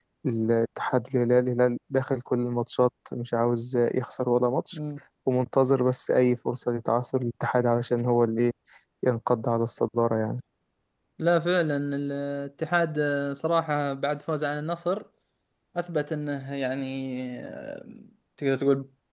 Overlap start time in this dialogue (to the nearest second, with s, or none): none